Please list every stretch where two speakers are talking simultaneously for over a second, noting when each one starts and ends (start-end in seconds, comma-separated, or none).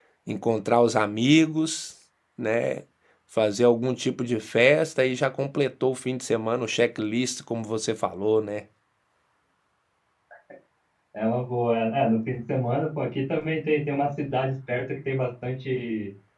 none